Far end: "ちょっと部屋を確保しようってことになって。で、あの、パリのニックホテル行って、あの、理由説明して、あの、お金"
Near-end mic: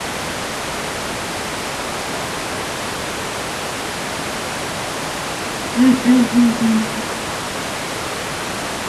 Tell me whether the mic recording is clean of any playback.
Yes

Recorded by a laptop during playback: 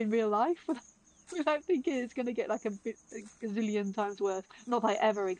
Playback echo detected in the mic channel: No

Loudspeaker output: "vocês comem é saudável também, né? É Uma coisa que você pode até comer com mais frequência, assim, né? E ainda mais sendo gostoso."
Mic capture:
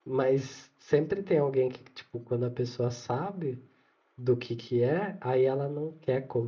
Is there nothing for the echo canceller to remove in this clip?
Yes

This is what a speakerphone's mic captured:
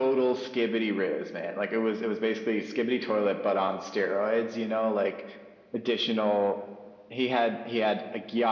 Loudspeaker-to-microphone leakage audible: Yes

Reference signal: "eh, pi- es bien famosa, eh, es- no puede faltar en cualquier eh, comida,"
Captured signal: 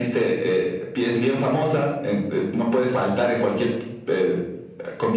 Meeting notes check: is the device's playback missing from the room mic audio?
No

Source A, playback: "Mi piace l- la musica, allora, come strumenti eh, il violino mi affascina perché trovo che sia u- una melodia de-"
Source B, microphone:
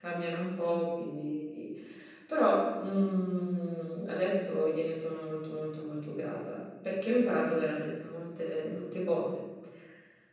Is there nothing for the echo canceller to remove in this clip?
Yes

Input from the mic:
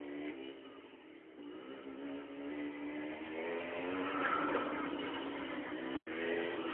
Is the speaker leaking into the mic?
No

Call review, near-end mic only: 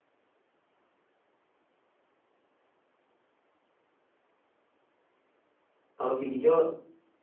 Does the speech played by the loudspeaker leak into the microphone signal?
No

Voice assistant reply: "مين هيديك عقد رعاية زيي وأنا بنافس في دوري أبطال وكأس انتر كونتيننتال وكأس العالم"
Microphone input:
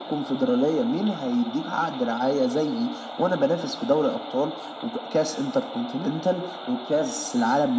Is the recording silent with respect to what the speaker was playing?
No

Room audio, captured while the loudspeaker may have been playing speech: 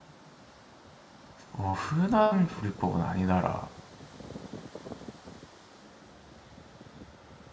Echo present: No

